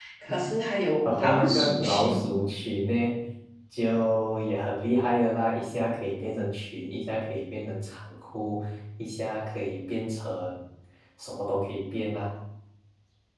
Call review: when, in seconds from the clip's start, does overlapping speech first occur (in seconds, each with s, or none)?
1.1 s